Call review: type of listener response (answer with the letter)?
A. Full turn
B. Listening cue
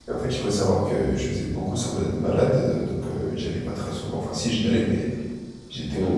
B